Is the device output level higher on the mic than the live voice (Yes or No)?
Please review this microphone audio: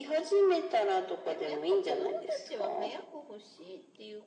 Yes